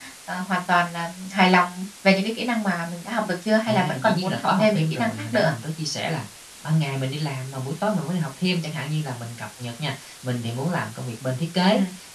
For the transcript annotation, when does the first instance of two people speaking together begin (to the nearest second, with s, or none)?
4 s